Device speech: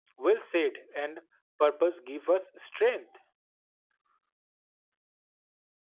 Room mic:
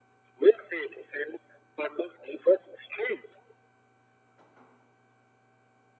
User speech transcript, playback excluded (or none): none